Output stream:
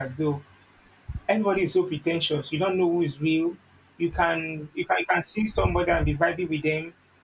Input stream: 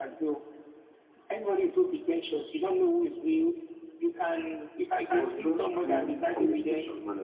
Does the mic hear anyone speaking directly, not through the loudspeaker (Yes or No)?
Yes